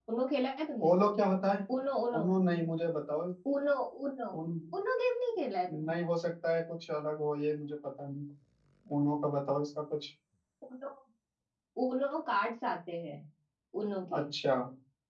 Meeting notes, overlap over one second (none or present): none